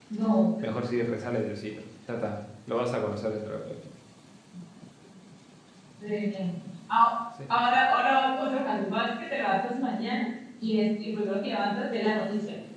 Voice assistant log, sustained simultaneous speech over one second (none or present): none